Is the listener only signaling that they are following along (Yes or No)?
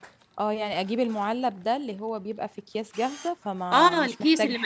No